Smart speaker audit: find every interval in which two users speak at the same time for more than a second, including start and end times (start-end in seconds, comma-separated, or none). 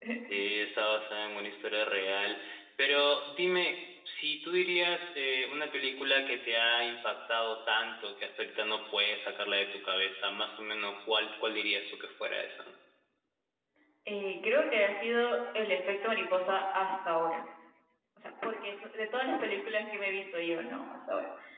none